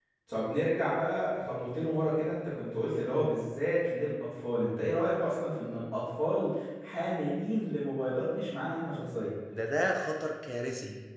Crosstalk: none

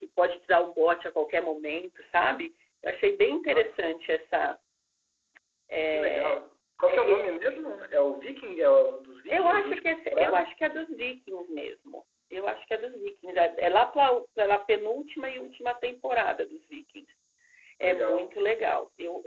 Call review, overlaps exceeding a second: present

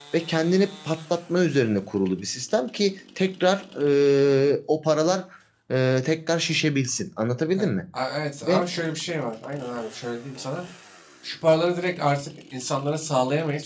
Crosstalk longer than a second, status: none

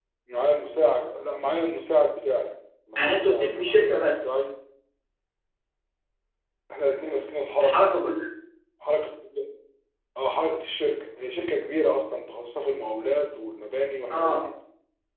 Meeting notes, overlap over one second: present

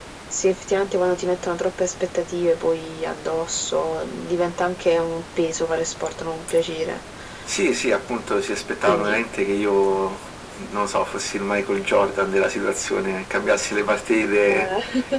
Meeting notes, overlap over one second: none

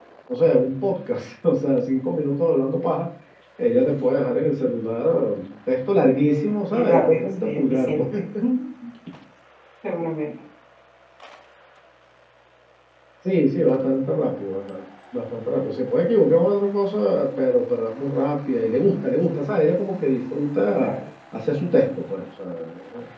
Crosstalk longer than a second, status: present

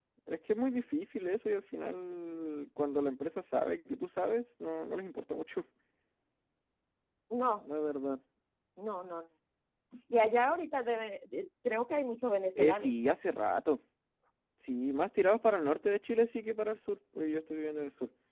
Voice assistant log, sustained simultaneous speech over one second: none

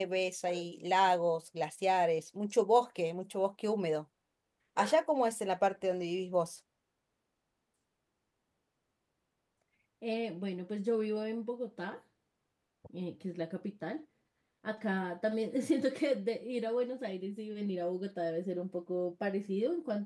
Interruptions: none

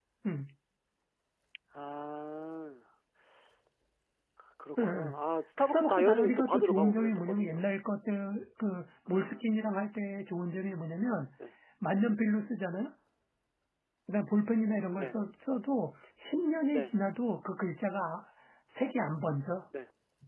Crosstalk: present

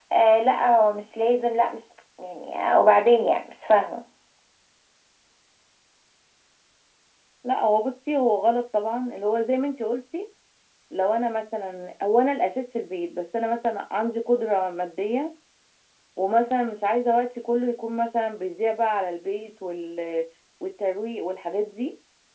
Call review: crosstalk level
none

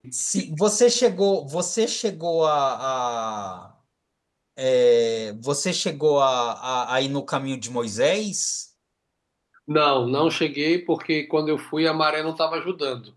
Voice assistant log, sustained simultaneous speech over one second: none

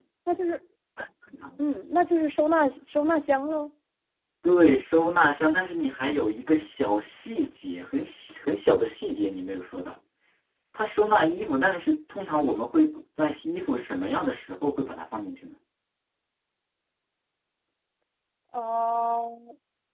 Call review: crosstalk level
none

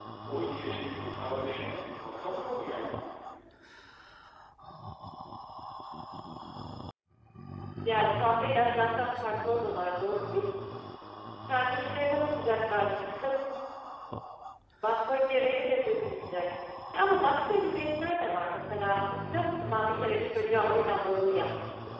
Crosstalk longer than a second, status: none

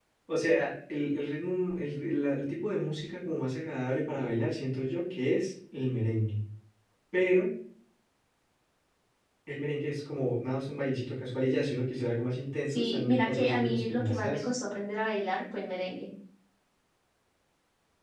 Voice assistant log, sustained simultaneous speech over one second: present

